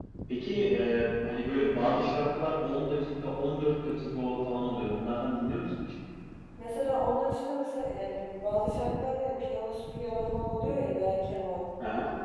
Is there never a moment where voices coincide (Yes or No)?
Yes